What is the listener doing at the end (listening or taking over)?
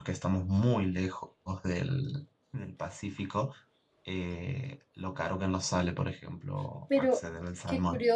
taking over